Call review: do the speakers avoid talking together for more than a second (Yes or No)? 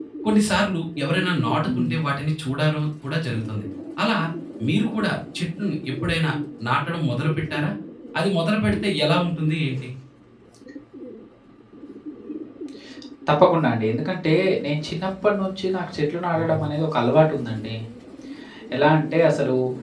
Yes